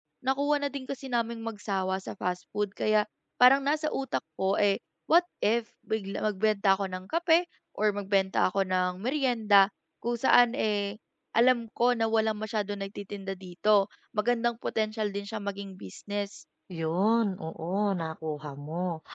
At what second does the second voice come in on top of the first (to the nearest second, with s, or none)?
none